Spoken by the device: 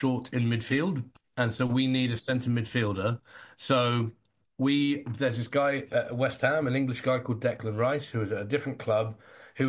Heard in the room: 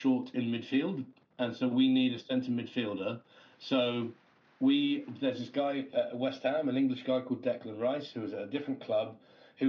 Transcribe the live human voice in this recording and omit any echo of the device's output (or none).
none